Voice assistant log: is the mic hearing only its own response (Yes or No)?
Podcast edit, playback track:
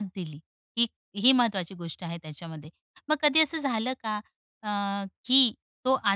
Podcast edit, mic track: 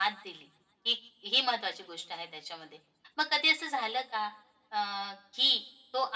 Yes